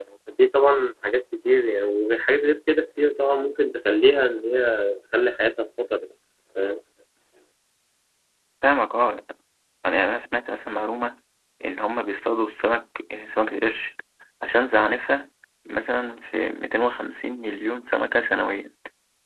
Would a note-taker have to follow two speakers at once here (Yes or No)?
No